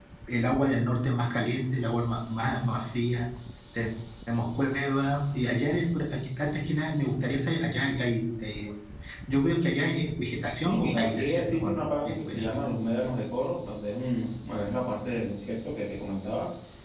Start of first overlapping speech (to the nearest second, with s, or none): 11 s